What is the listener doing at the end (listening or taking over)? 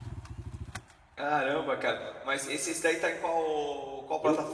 taking over